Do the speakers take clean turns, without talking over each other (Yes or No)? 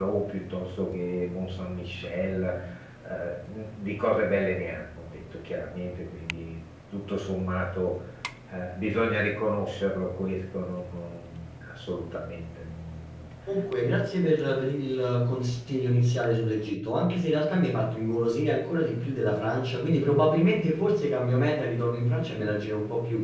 Yes